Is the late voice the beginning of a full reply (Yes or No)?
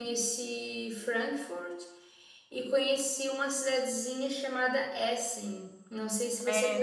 Yes